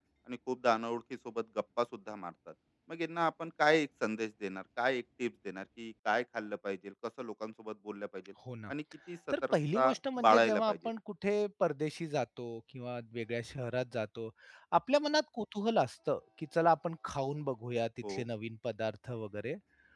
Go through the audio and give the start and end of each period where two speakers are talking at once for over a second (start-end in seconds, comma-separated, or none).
9.5-10.8